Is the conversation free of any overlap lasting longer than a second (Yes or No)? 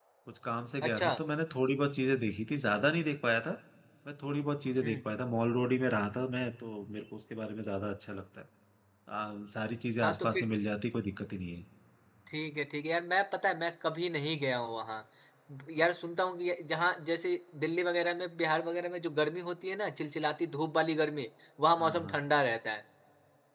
Yes